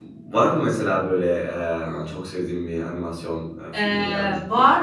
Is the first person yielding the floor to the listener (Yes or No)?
Yes